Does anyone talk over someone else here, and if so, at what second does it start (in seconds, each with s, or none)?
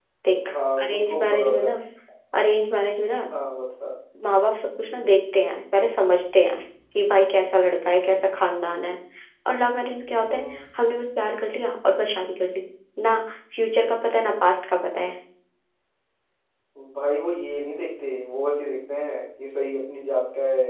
0.5 s